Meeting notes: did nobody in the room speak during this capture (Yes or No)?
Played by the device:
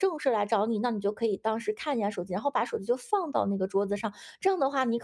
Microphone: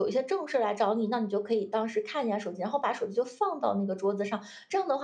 Yes